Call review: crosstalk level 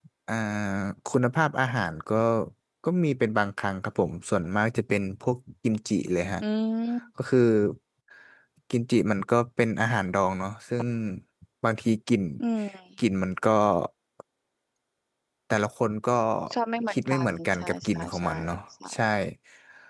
present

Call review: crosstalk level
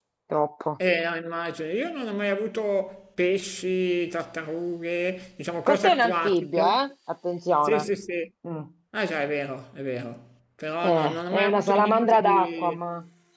present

